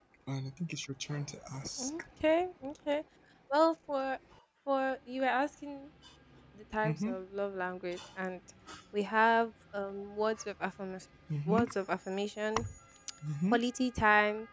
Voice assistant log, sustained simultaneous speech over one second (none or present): none